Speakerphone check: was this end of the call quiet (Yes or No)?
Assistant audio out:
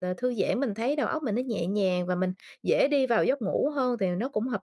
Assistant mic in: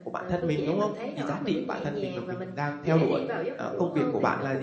No